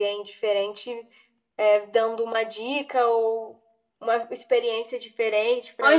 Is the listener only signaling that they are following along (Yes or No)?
No